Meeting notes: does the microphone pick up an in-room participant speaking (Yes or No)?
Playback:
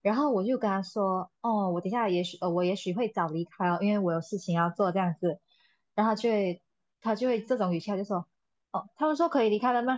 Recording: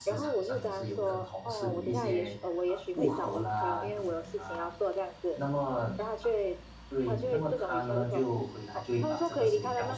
Yes